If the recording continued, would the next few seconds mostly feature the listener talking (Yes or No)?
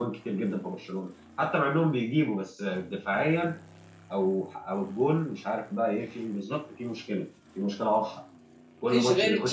Yes